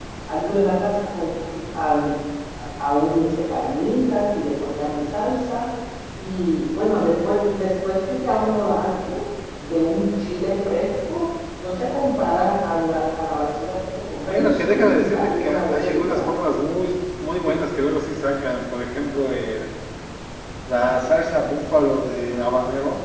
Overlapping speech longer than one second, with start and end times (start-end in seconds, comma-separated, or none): 14.3-16.3